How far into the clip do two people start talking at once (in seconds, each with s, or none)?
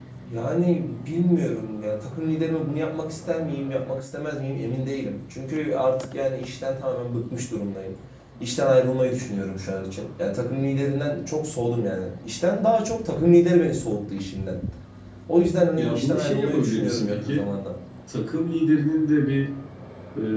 15.8 s